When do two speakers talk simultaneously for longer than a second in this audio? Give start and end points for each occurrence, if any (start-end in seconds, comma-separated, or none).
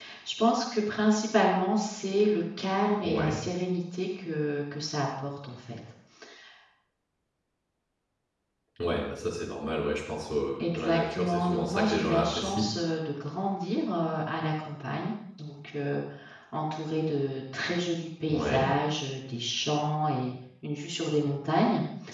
10.7-12.7